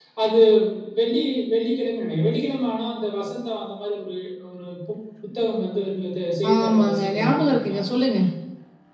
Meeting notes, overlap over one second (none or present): present